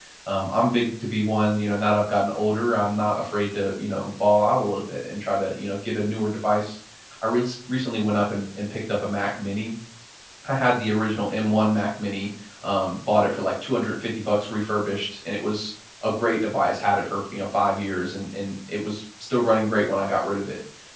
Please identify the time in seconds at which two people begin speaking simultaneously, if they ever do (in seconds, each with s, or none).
none